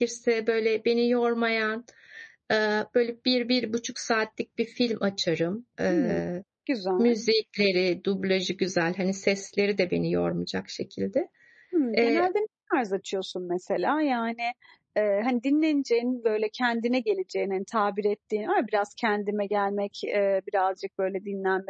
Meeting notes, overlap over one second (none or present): none